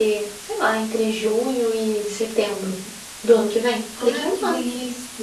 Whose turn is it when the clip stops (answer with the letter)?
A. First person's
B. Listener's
B